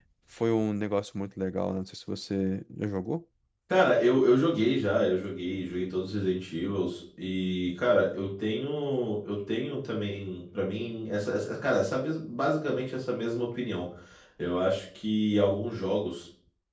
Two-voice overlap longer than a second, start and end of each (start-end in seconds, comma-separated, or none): none